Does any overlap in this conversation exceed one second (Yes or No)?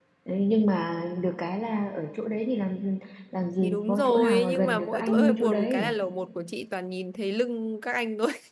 Yes